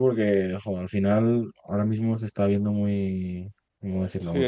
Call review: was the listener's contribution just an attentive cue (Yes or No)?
No